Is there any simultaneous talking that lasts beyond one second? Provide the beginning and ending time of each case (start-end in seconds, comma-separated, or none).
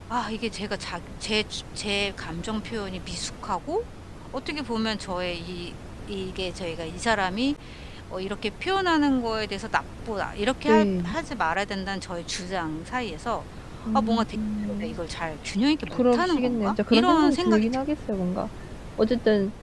15.9-17.6